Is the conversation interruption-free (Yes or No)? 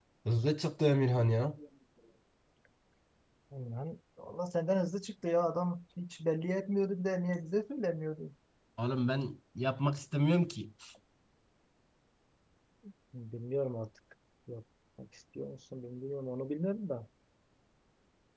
Yes